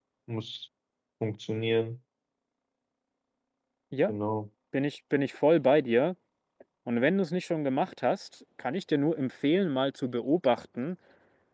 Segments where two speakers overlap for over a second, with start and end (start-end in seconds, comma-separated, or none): none